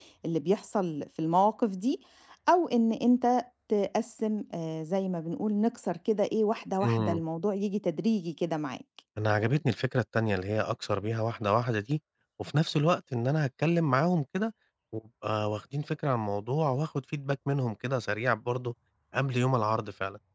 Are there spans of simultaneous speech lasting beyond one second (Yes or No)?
No